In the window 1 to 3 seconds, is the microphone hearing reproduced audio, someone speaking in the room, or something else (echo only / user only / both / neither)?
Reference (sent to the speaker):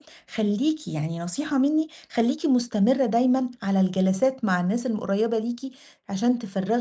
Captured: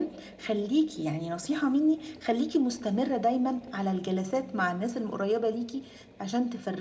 echo only